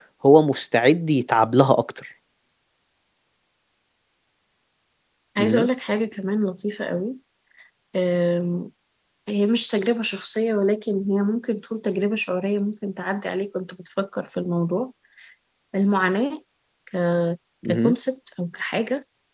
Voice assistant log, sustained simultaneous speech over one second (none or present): none